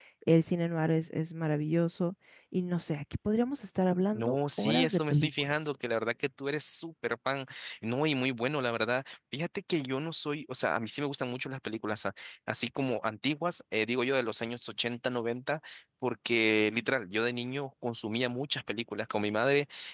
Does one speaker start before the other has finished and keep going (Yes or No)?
Yes